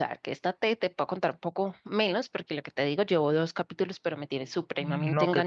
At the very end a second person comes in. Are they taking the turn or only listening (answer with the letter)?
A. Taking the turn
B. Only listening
A